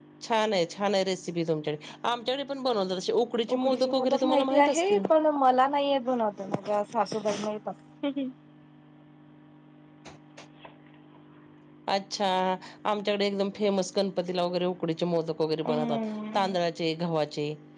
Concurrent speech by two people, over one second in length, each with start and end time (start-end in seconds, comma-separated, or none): 3.5-5.1